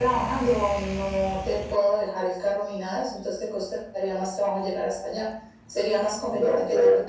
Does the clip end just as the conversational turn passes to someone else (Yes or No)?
No